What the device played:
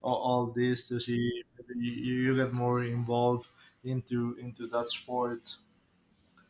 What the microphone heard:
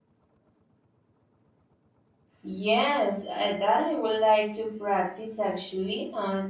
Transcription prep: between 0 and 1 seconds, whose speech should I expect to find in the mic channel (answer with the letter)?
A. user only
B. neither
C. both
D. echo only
B